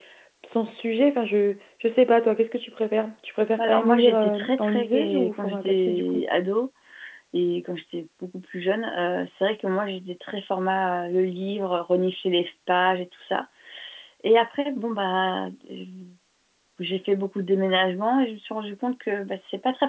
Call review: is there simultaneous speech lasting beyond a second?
Yes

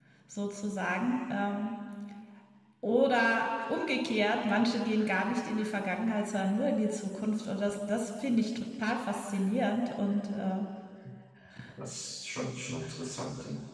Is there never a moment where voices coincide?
Yes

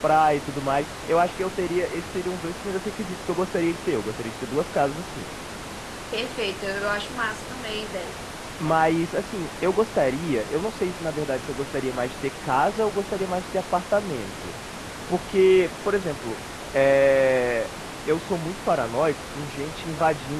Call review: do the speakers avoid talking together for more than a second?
Yes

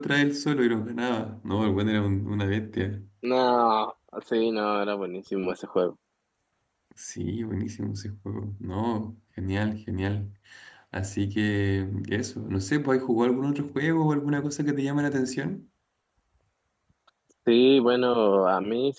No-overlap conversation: Yes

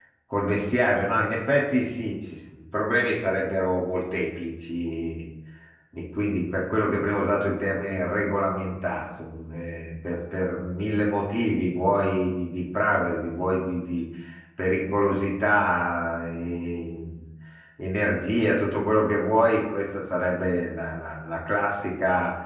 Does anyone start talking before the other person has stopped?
No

